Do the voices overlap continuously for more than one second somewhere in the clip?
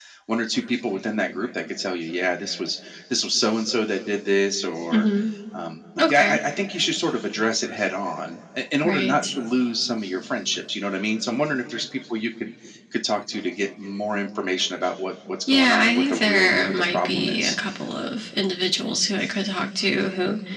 Yes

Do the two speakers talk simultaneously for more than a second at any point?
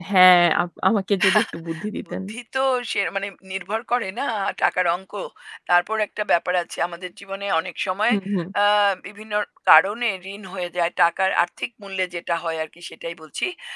No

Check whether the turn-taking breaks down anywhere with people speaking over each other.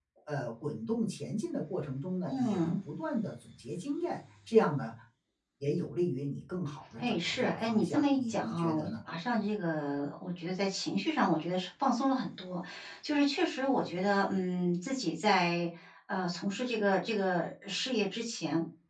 Yes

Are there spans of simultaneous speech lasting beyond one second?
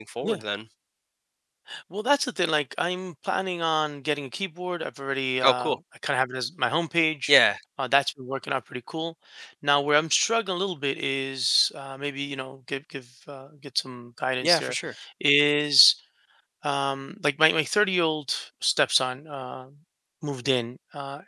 No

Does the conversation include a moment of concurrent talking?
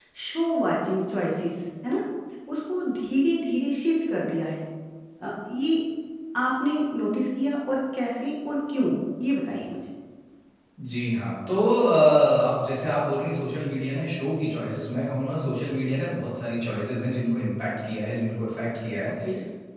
No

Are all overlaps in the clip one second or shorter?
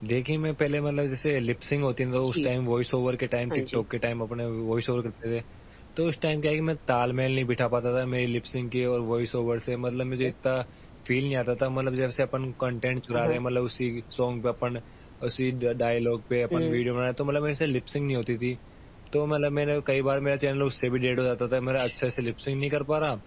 Yes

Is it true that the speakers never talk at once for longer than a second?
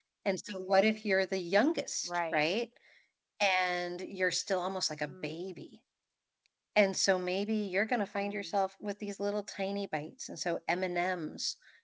Yes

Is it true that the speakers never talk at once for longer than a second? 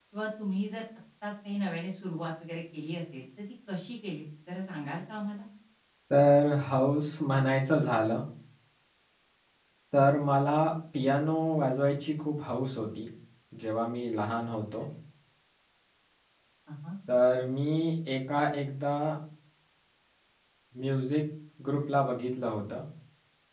Yes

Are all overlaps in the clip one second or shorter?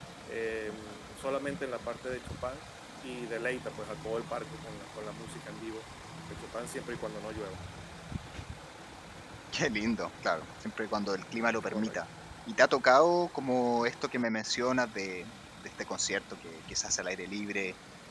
Yes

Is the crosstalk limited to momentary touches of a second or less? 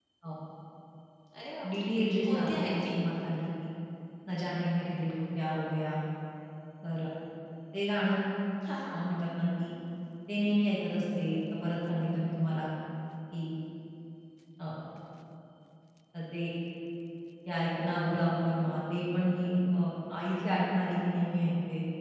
No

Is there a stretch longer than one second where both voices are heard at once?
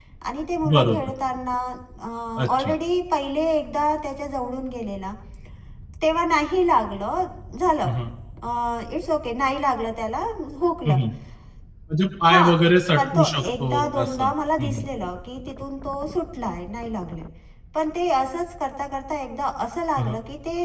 Yes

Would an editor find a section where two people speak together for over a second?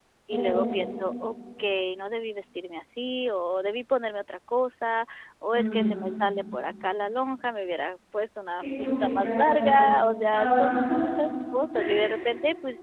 Yes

